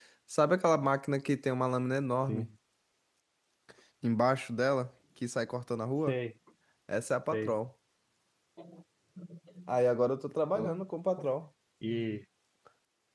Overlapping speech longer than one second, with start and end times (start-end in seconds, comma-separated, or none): none